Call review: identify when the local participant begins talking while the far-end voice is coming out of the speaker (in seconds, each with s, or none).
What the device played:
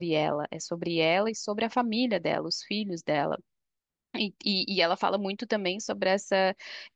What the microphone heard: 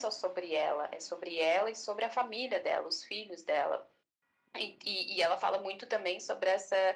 none